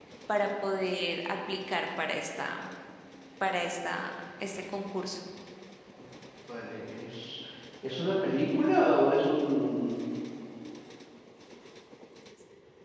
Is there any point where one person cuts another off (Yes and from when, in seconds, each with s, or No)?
No